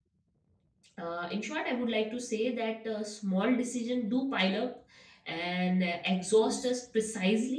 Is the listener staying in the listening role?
Yes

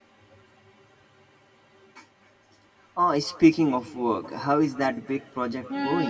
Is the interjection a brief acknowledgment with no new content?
No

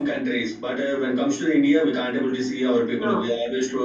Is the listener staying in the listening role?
Yes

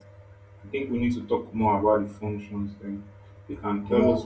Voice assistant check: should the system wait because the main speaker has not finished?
Yes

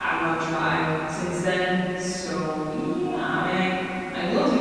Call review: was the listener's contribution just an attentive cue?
Yes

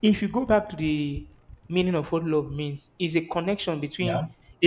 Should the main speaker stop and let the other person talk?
No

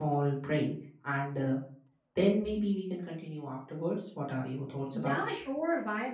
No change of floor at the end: No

